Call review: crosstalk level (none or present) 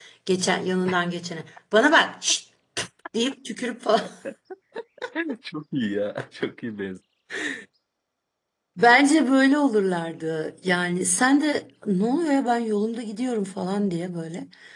none